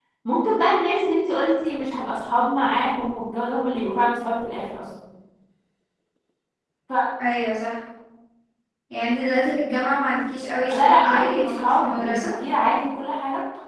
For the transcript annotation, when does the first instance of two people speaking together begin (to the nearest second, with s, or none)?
11 s